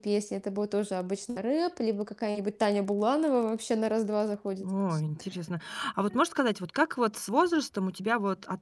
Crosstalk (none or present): none